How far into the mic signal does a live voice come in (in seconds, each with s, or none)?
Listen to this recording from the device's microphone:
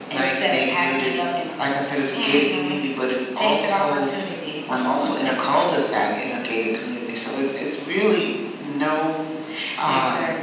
none